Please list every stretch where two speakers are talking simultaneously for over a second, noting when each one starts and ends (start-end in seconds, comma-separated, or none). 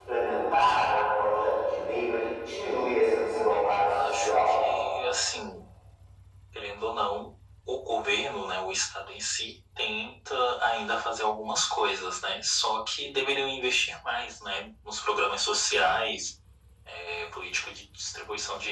3.3-4.6